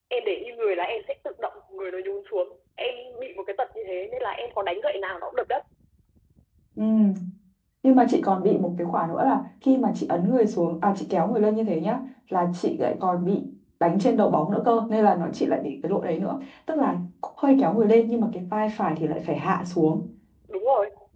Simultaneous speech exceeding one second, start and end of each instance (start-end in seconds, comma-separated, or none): none